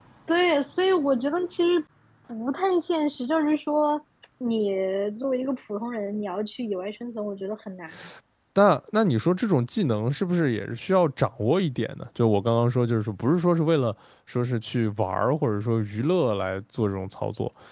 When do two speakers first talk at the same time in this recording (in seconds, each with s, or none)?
none